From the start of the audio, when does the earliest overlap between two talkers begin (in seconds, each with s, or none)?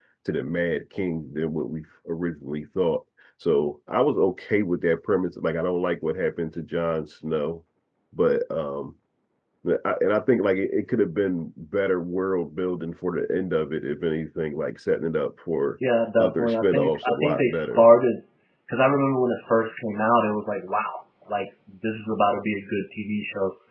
16.2 s